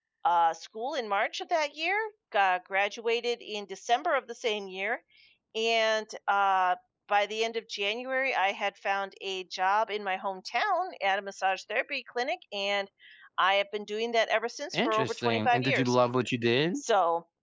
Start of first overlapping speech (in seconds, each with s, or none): 14.7 s